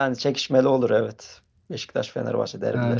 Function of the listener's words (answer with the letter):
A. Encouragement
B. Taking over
B